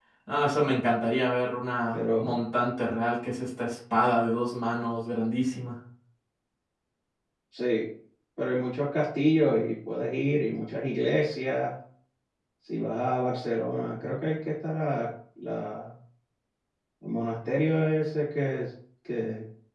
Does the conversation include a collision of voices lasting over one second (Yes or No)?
No